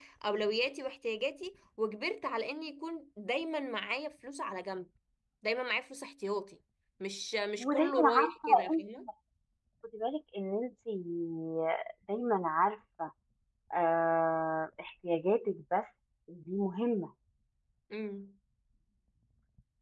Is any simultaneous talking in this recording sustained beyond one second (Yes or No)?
Yes